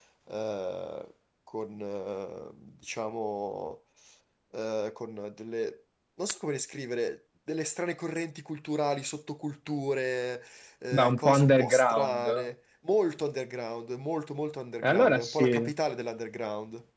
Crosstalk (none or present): present